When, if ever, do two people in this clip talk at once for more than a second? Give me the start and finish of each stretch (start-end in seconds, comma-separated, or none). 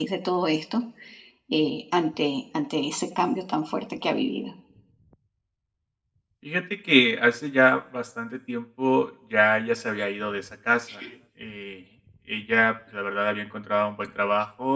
none